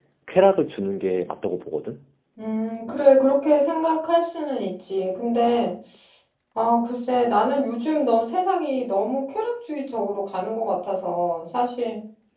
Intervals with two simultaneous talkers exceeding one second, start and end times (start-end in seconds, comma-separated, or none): none